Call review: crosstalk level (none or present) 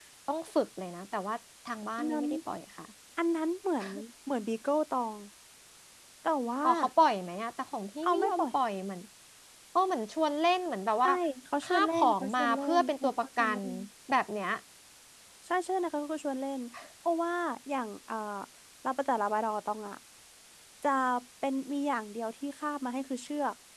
present